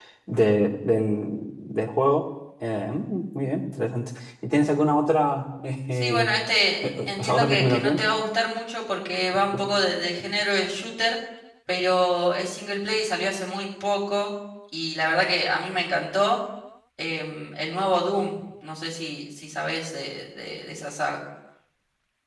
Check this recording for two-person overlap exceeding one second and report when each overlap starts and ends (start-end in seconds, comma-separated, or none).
6.8-8.1